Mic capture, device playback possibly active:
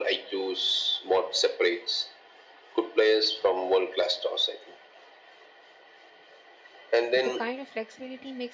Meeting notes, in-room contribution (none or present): present